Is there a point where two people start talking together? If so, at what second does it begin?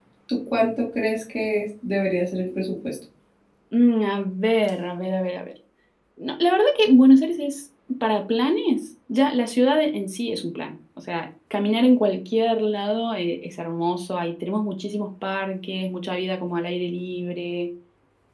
none

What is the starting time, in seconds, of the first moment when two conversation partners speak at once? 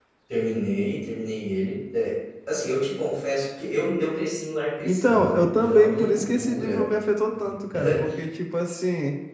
4.8 s

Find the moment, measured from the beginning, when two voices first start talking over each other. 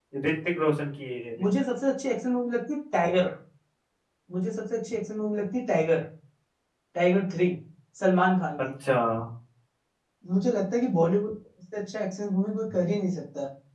none

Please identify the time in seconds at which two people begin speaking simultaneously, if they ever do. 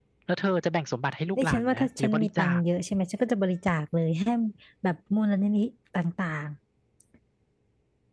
1.4 s

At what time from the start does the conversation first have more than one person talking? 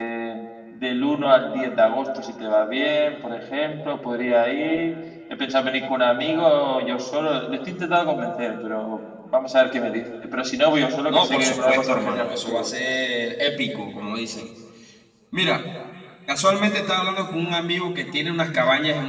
11.1 s

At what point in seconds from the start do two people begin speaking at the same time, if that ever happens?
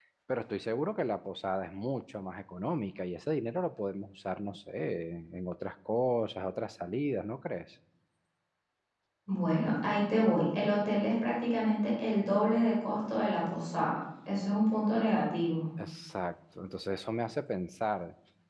none

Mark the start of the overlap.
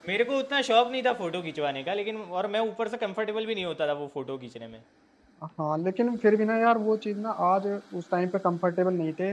none

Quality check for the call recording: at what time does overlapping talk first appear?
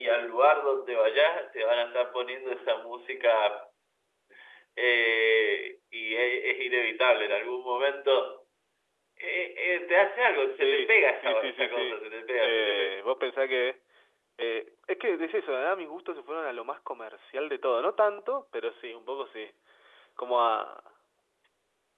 10.6 s

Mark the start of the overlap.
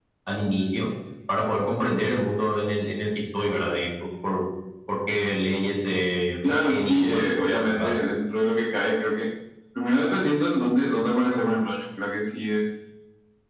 6.4 s

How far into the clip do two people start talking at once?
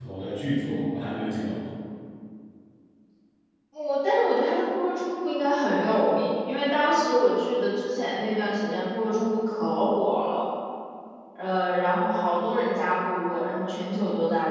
none

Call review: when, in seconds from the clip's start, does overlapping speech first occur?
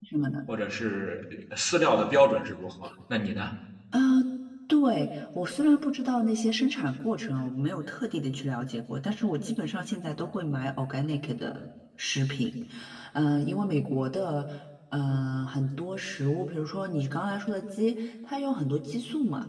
none

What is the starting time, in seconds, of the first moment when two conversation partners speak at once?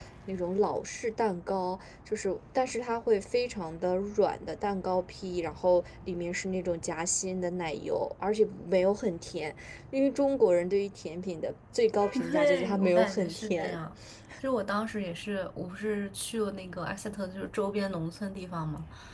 12.1 s

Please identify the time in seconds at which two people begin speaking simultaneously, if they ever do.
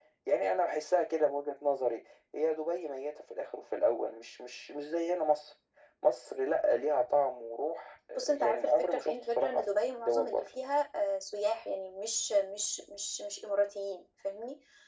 8.2 s

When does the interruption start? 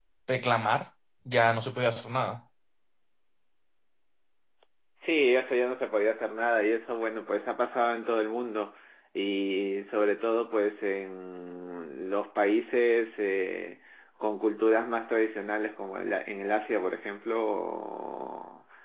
none

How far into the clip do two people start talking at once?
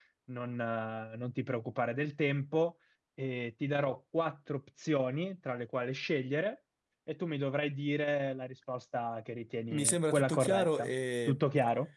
9.7 s

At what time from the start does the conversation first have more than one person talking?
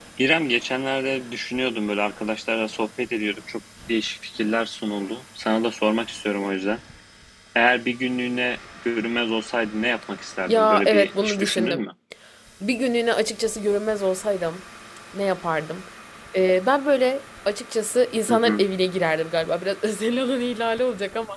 10.5 s

